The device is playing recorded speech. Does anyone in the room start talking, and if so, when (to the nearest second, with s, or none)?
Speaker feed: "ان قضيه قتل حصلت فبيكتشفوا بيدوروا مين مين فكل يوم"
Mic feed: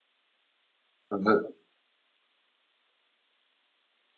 1 s